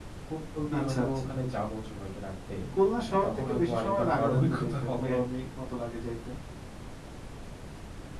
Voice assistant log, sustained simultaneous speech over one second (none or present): present